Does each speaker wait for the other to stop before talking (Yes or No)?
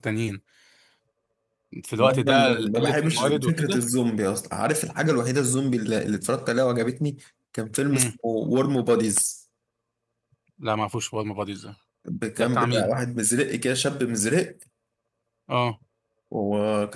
No